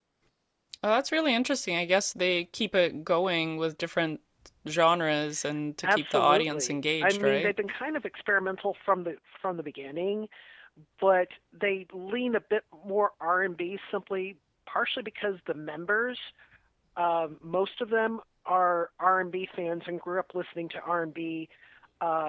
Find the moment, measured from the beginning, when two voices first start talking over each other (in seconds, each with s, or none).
5.8 s